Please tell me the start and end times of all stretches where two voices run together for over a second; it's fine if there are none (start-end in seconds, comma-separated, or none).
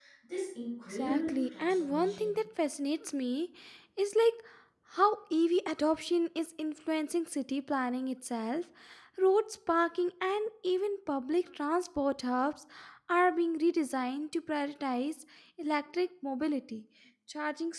0.9-2.3